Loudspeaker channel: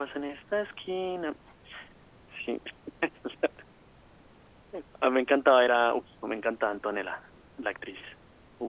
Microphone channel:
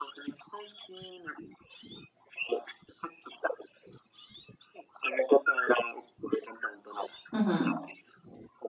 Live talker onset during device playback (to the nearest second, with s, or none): 7 s